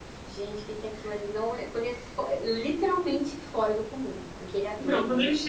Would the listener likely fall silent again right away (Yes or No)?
No